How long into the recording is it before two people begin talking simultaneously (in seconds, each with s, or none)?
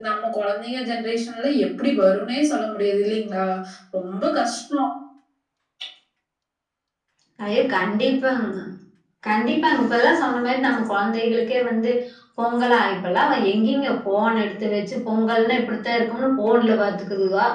none